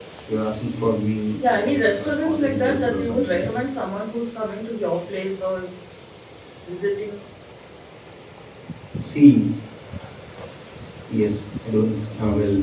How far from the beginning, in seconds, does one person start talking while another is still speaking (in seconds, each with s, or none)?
1.4 s